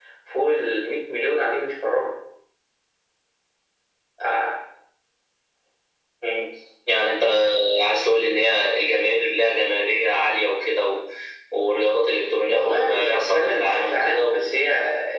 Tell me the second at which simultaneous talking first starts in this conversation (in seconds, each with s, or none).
12.5 s